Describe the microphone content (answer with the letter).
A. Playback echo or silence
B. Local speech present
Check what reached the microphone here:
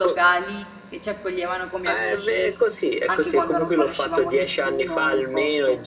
B